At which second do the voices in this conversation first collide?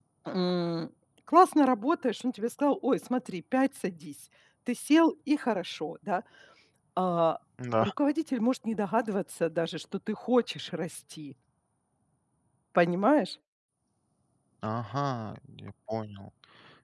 none

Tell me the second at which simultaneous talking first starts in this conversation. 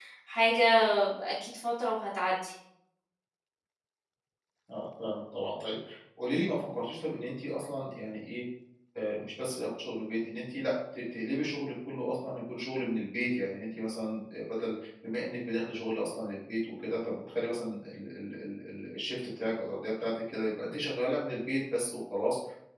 none

